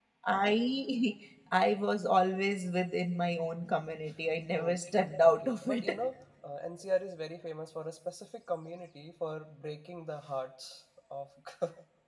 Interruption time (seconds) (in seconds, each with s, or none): 4.6 s